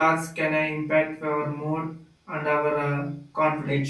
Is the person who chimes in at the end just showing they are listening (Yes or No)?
No